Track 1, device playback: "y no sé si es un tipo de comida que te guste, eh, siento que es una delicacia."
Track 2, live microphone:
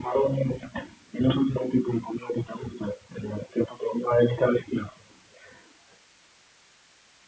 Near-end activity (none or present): none